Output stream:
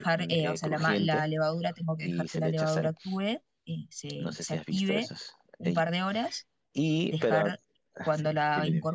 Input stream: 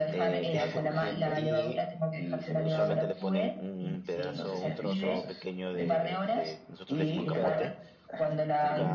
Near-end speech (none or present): present